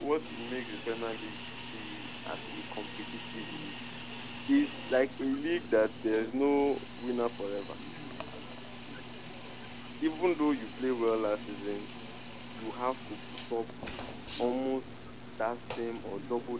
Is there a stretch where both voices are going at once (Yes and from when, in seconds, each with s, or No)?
No